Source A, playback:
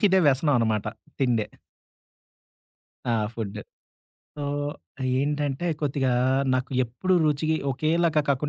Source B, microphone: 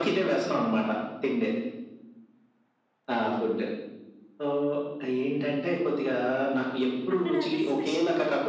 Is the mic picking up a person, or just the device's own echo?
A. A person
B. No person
A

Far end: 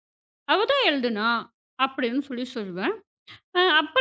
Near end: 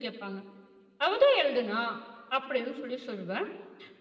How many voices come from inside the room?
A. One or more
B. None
B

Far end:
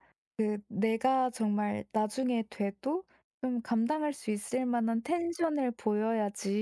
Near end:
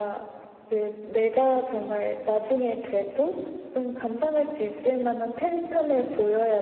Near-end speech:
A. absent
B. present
A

